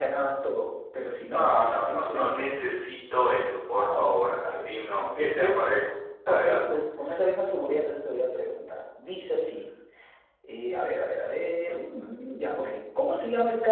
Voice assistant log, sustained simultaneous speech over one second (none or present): present